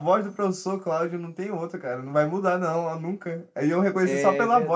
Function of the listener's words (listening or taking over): listening